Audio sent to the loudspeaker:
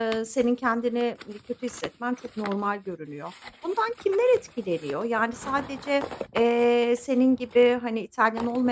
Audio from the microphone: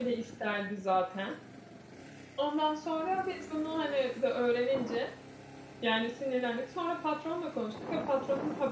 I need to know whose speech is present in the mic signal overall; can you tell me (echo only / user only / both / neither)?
user only